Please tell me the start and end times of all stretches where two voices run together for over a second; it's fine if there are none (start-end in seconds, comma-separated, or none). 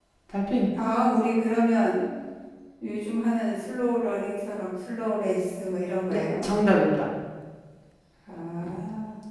none